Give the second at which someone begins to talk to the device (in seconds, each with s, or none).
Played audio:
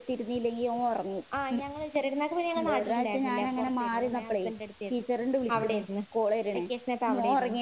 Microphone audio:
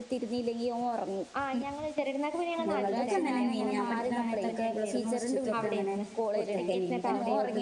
2.7 s